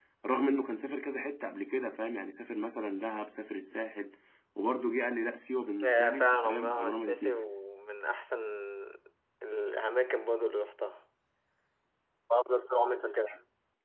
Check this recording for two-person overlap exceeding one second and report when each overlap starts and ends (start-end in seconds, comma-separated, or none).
5.8-7.4